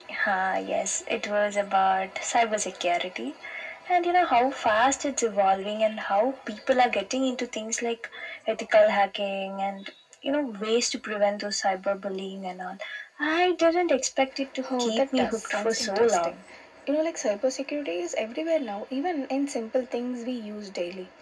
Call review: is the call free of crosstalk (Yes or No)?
No